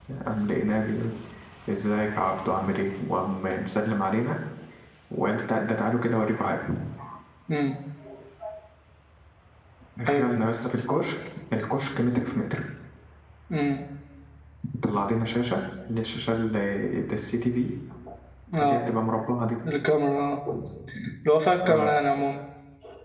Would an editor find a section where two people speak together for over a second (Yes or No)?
No